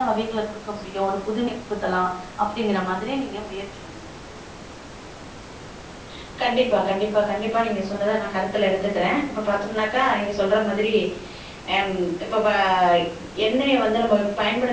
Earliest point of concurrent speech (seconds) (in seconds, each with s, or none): none